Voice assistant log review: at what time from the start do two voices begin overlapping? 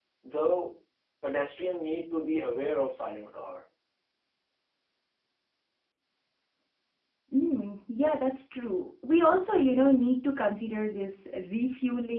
none

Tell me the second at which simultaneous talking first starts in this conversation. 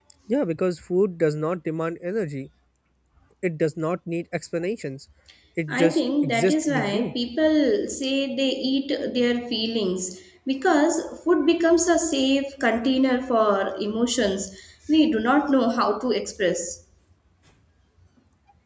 6 s

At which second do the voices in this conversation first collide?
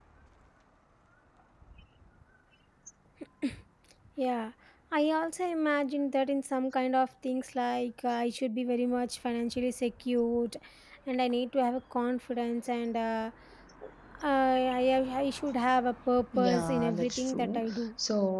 16 s

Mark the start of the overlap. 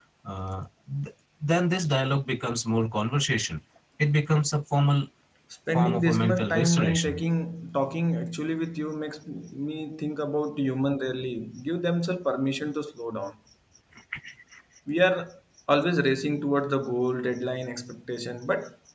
6 s

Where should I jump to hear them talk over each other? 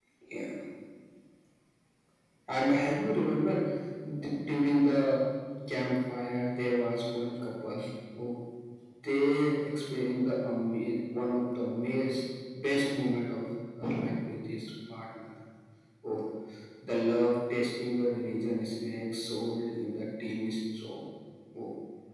none

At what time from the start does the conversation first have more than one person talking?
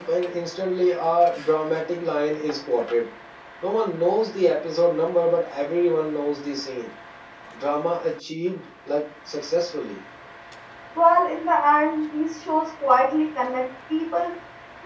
none

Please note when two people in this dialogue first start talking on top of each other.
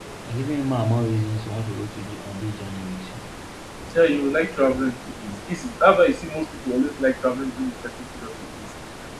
none

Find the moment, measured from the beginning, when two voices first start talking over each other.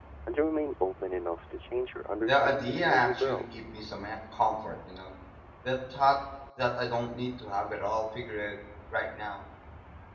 2 s

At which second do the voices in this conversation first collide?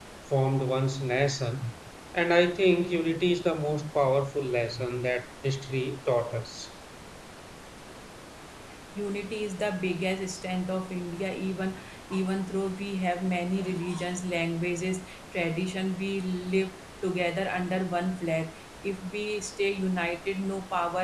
none

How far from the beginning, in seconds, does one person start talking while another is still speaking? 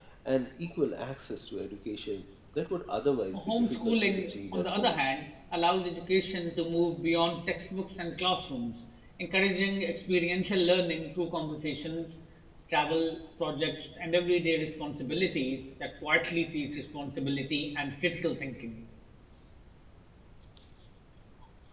3 s

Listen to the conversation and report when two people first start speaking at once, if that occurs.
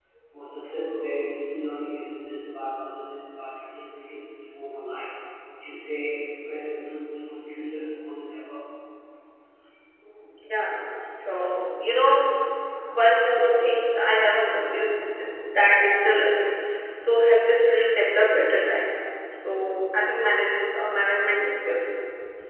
none

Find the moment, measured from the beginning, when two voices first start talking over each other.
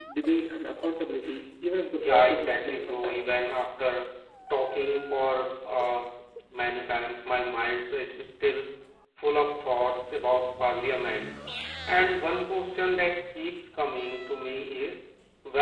2 s

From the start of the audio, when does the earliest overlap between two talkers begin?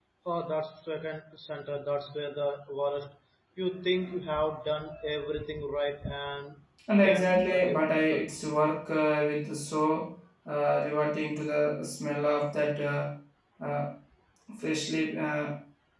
7 s

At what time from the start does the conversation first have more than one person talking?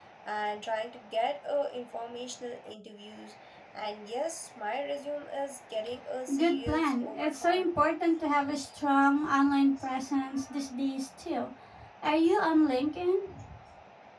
6 s

